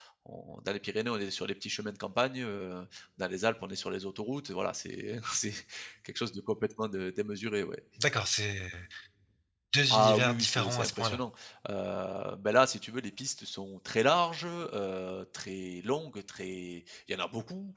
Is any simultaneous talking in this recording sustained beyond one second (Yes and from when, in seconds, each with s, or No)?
Yes, from 9.9 s